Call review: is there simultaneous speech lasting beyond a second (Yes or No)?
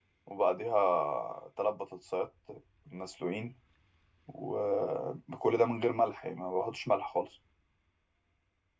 No